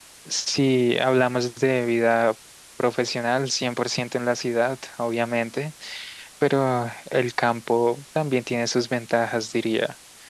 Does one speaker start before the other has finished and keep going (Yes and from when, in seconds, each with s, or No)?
No